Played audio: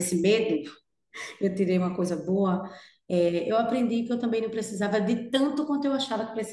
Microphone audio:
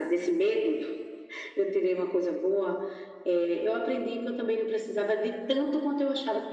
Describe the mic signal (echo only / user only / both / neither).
echo only